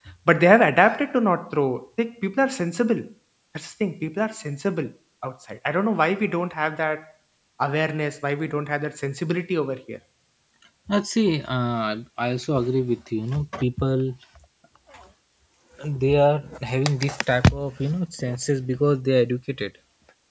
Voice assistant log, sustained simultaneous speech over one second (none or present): none